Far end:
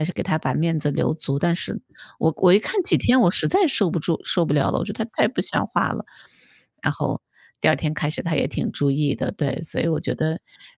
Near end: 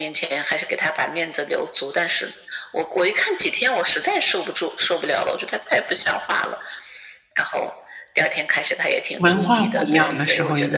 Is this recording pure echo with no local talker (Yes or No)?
No